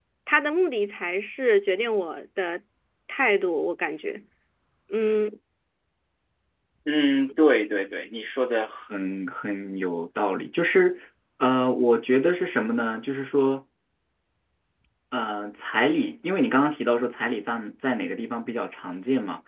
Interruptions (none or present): none